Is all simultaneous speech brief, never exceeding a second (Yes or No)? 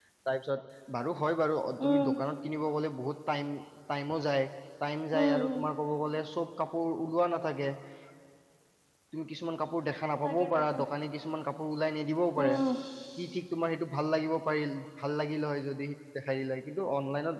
Yes